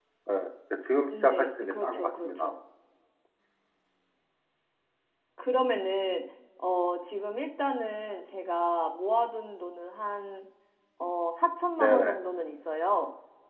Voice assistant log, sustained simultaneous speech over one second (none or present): present